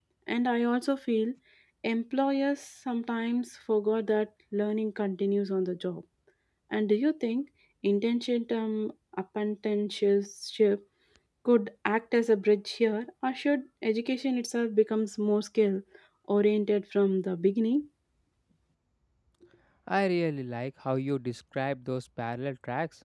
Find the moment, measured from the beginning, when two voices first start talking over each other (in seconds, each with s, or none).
none